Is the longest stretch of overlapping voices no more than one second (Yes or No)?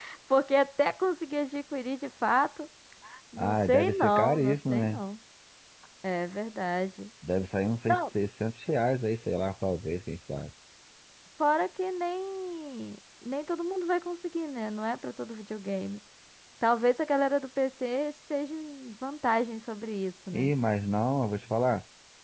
No